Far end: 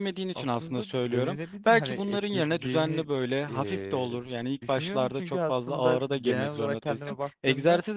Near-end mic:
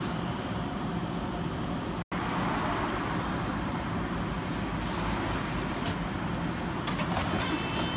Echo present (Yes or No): No